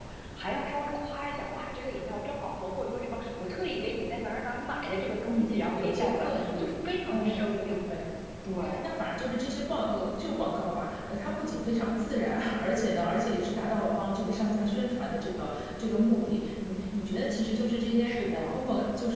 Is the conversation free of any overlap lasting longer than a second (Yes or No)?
No